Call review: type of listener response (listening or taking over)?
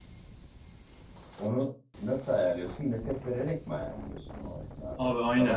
taking over